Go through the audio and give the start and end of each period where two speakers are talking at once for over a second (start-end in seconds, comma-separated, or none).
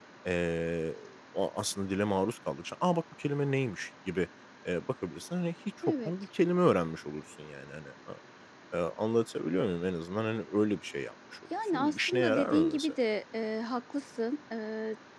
11.7-12.9